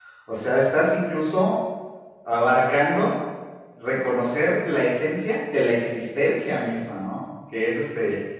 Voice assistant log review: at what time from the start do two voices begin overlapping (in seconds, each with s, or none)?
none